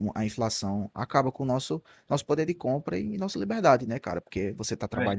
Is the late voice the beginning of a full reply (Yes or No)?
No